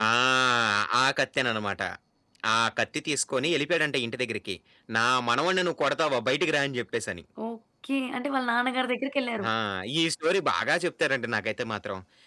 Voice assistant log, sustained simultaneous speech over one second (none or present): none